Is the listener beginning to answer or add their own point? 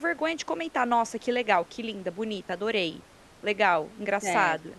No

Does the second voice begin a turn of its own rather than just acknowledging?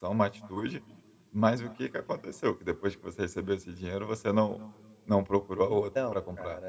Yes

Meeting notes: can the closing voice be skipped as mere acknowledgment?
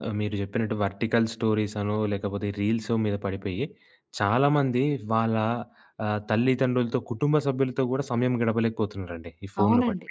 No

